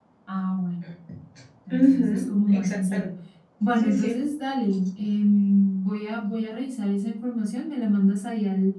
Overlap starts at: 1.7 s

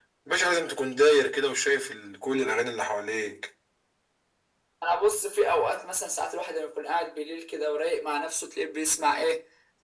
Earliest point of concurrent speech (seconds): none

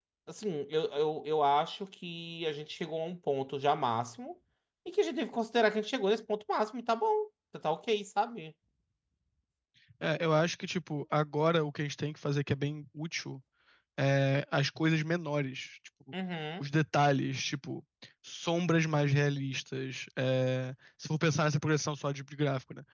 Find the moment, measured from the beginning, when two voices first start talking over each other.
none

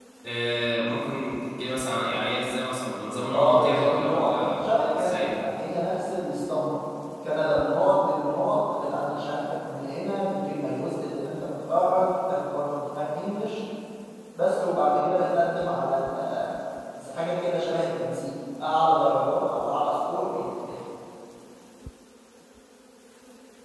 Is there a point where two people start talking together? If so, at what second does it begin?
3.3 s

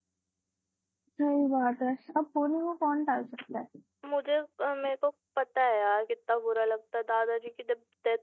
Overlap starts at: none

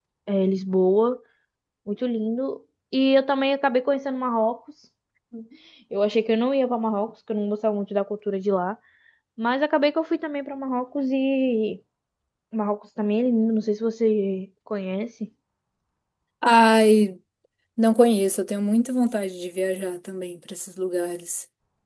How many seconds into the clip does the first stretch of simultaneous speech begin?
none

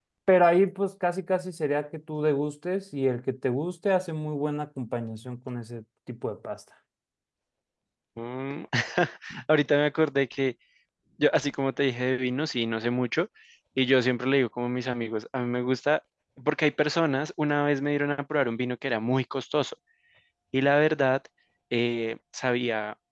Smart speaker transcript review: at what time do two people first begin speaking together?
none

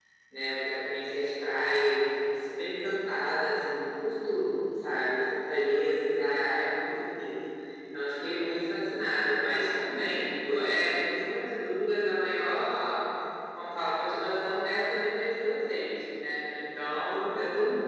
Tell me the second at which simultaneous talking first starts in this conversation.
none

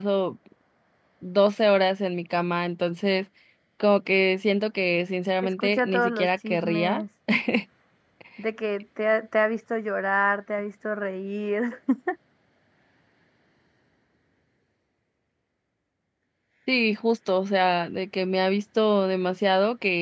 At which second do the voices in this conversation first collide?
5.6 s

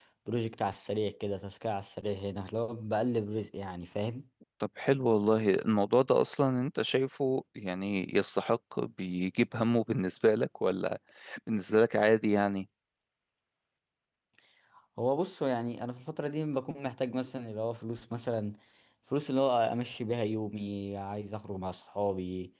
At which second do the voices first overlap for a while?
none

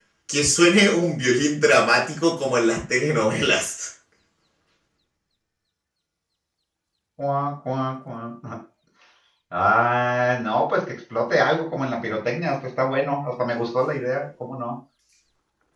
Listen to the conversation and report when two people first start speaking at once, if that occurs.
none

